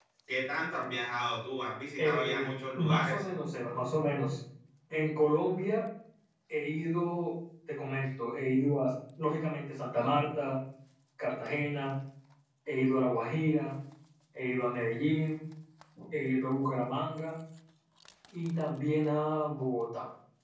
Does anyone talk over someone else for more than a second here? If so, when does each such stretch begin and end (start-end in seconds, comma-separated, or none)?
2.0-3.2